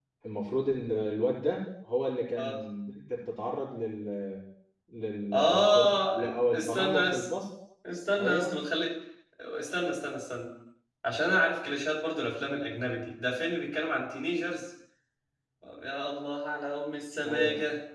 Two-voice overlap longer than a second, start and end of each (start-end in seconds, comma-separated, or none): 5.3-7.3